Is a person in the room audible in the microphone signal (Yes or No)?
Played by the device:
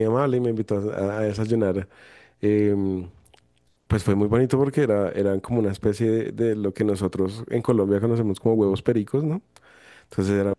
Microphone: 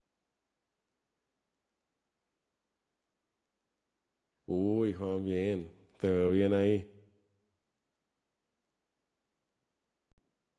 Yes